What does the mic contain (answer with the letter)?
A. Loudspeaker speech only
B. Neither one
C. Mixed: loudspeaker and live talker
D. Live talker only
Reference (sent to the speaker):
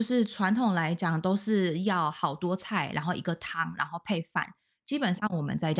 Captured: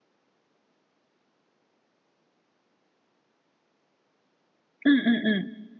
D